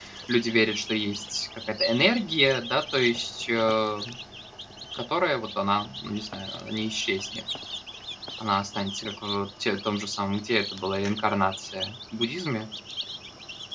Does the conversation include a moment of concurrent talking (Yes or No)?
No